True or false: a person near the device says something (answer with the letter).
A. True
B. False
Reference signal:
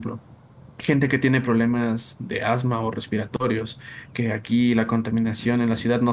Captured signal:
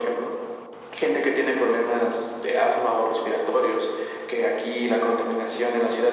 B